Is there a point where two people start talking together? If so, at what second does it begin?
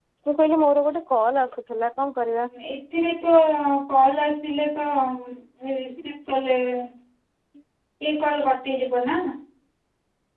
none

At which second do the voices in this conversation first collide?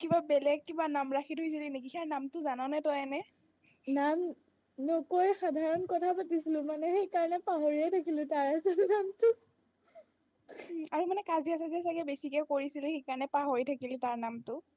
none

